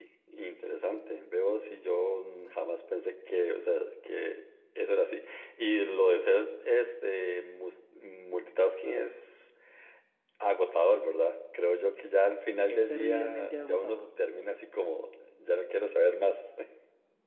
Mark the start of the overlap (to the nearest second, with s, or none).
13 s